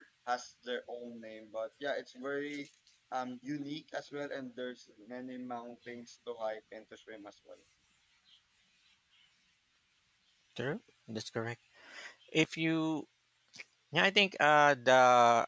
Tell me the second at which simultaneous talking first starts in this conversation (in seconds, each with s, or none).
none